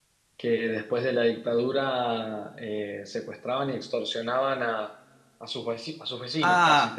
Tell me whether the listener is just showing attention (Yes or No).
No